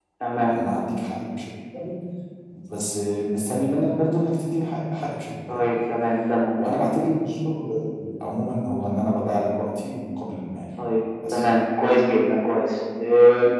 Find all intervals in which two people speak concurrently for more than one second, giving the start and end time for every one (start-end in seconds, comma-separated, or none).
none